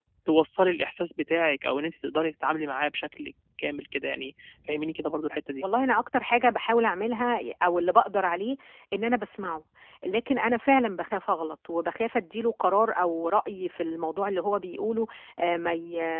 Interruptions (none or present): none